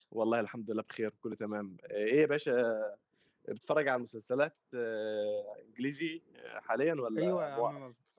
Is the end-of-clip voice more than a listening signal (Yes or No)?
Yes